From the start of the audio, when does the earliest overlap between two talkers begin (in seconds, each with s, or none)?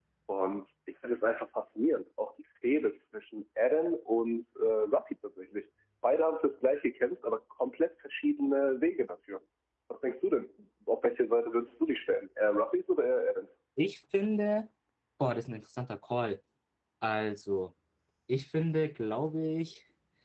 none